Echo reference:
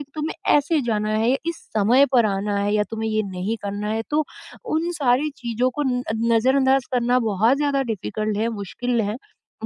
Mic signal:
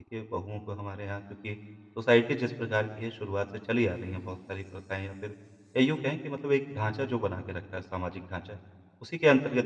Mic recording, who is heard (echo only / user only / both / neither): user only